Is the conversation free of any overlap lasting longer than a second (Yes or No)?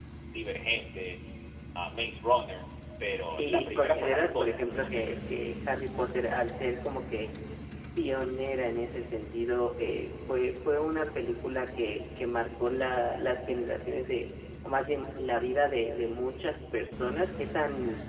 No